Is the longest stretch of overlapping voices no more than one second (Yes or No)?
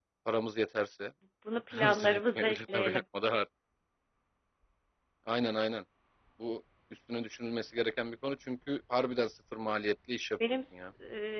No